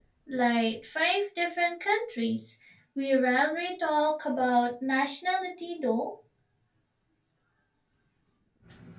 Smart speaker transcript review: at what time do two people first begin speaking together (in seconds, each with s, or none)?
none